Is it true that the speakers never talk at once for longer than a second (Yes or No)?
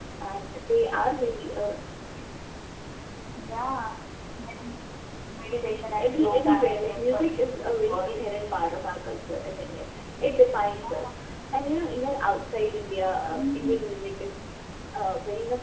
No